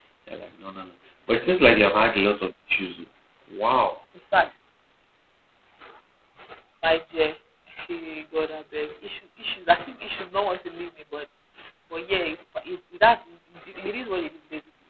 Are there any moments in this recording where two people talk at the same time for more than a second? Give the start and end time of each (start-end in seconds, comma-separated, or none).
none